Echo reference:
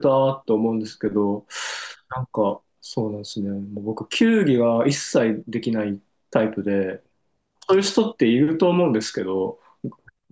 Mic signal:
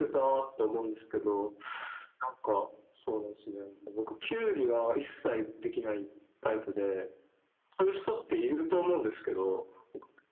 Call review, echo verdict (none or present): present